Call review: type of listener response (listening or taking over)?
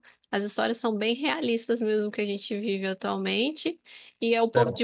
listening